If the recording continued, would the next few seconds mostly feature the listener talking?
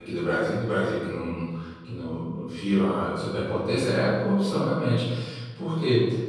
No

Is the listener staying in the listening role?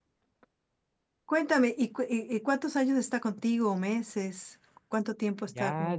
No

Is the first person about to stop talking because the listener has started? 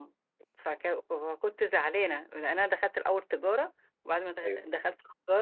No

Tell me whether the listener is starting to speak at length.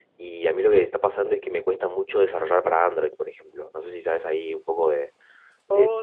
Yes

